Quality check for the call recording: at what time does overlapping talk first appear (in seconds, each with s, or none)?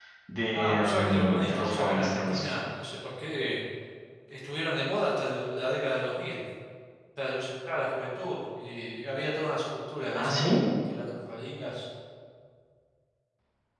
0.5 s